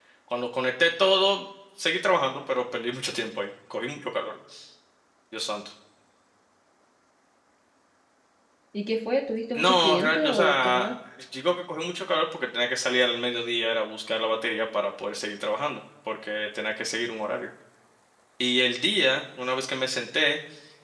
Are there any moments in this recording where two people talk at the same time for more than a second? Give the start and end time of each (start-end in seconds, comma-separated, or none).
9.5-10.9